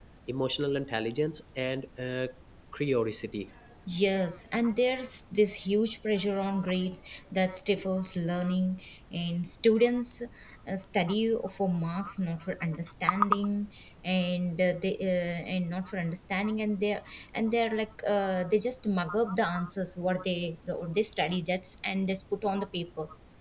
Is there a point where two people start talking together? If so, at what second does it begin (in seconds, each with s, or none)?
none